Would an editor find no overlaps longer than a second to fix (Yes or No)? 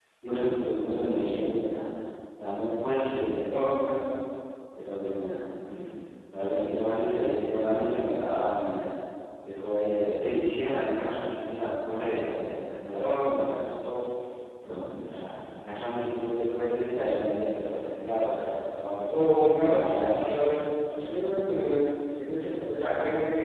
Yes